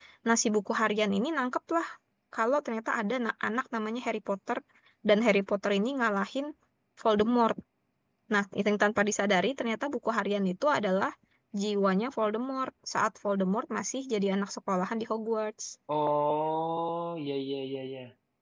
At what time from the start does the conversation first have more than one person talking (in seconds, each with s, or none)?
none